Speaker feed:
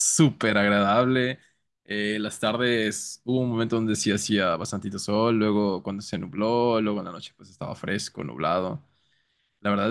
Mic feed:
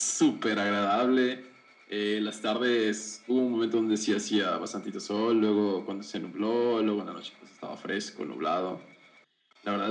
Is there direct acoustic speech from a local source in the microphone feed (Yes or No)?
No